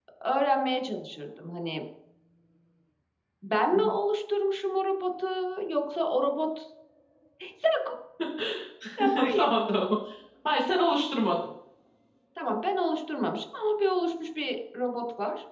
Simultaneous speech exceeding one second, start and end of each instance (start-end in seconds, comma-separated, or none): none